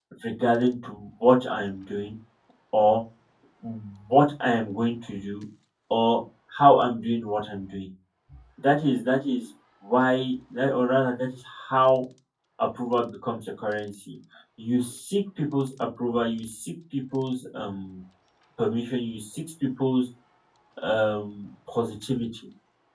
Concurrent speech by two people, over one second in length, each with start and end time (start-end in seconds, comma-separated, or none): none